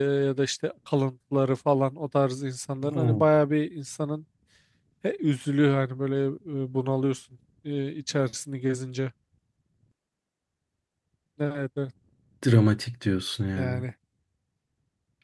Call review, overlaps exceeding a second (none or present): none